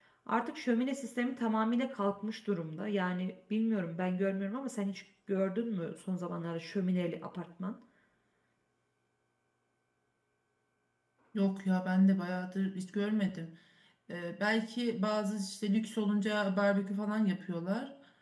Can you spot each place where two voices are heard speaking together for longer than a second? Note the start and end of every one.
none

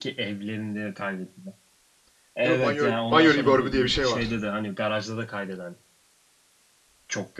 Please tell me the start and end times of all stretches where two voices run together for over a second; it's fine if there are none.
2.4-4.2

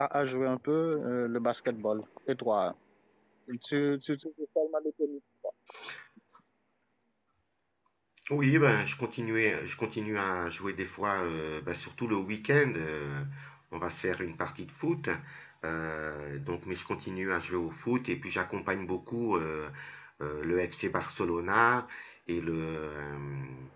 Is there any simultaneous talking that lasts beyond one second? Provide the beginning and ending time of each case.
none

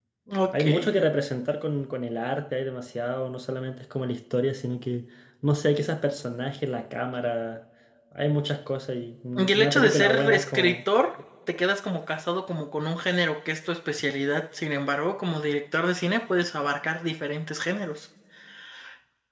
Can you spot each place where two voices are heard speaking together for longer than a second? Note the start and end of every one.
9.3-10.8

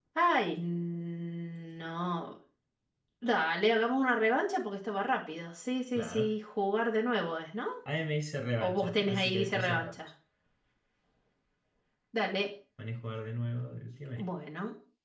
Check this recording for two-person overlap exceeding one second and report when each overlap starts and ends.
8.6-10.0

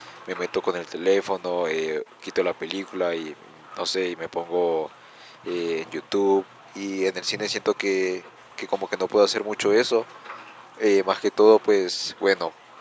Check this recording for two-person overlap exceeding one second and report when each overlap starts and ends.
none

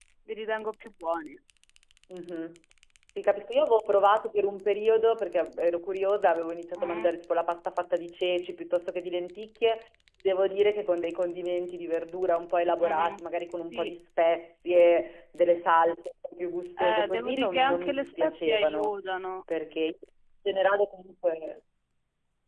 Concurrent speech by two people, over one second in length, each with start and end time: 16.8-18.9

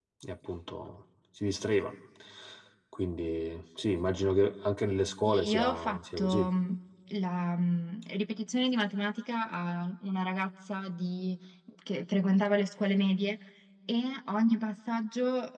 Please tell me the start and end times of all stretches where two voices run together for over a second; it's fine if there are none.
5.2-6.5

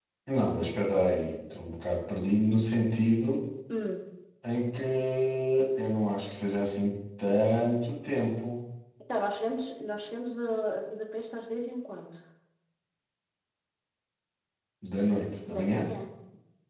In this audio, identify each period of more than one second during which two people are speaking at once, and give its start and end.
none

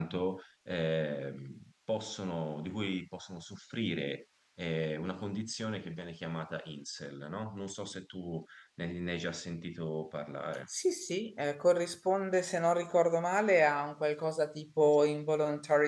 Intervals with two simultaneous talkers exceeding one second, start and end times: none

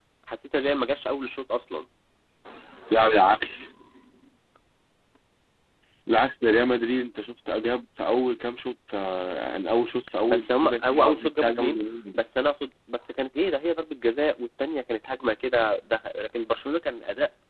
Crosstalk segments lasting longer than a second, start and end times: 10.3-11.8

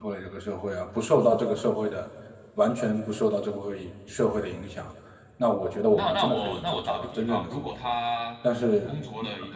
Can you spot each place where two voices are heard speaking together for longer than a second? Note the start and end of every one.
5.9-7.7

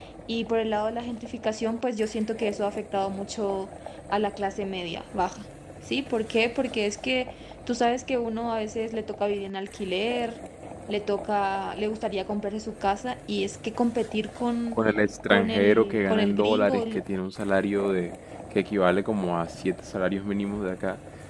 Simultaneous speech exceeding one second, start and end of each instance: 15.3-17.0

